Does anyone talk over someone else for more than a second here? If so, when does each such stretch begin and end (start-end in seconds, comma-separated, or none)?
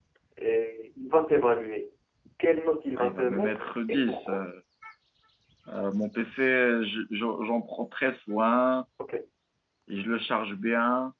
3.0-4.4